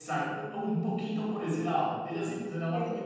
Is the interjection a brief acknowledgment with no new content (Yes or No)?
Yes